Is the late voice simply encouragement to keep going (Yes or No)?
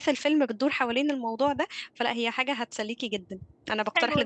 No